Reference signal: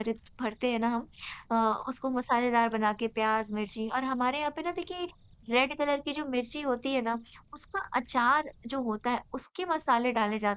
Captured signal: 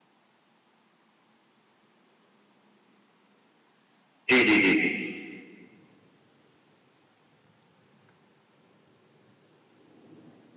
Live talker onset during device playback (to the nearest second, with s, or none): 4 s